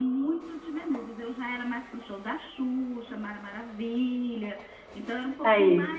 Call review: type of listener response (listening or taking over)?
listening